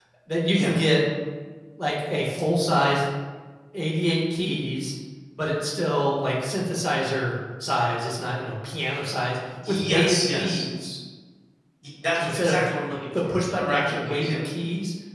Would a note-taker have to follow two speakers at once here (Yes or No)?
Yes